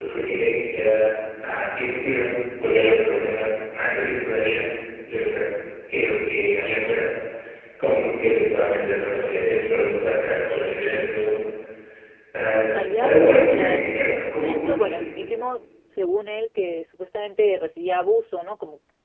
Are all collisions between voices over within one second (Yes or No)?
No